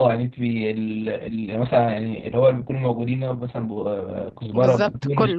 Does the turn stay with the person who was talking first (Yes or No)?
Yes